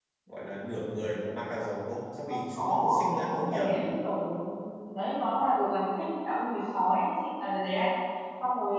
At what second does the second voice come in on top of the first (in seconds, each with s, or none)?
2.3 s